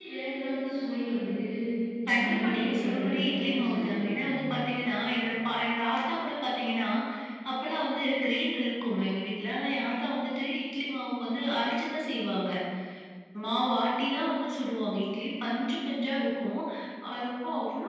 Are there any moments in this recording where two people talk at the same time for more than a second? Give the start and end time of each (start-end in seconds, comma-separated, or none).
2.1-4.1